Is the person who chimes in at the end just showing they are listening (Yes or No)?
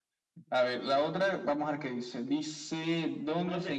No